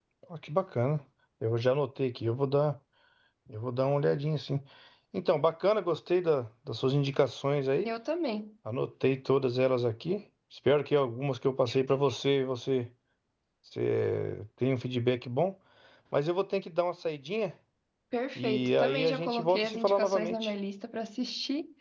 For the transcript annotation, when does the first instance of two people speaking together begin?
18.4 s

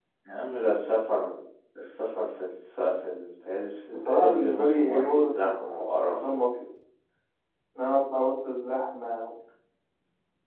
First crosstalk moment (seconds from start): 3.9 s

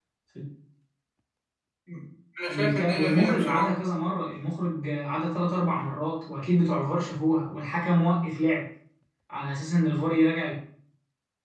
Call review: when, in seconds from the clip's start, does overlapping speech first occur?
2.5 s

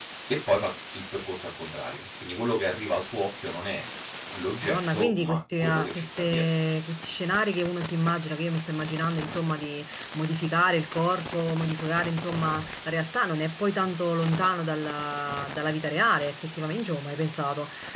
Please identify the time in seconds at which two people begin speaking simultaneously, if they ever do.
4.6 s

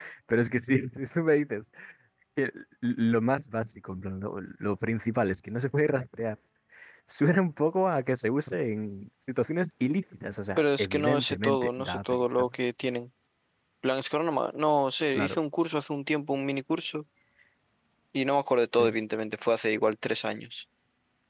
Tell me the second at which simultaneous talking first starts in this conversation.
10.6 s

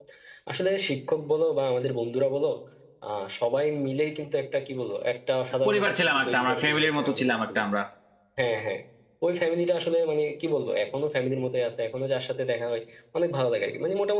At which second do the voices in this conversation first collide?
5.7 s

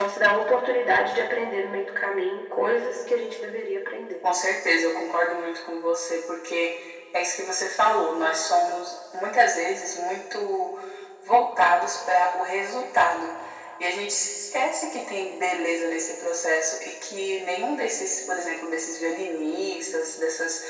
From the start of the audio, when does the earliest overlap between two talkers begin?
none

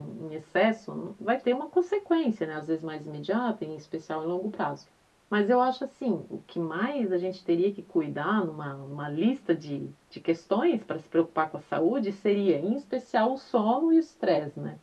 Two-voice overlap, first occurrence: none

